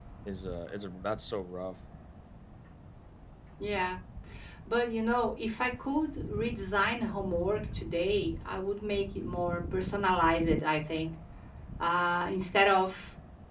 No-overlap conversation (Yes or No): Yes